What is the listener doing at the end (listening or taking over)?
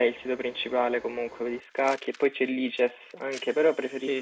listening